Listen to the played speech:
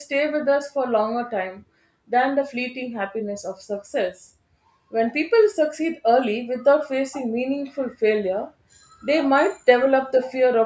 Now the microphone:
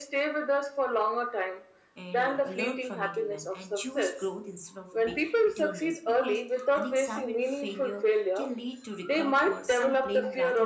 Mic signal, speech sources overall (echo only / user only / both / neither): both